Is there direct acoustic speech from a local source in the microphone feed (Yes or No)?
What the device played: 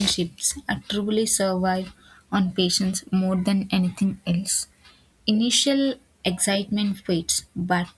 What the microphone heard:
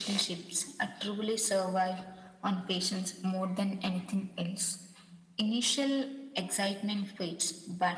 No